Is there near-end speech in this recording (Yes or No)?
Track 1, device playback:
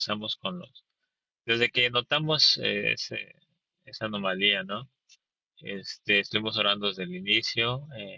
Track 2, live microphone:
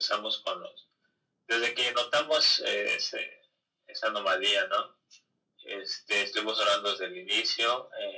No